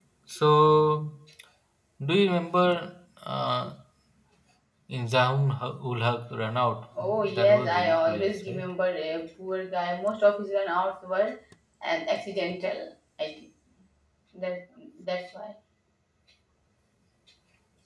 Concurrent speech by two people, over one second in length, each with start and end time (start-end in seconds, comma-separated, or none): 7.0-8.6